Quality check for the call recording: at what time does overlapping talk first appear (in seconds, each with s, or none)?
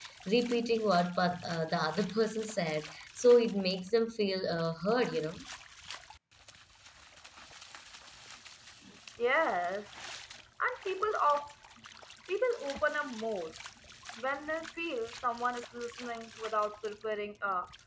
none